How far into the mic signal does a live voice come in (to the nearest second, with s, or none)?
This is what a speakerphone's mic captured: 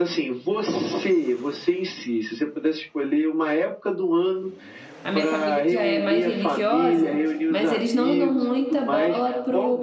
5 s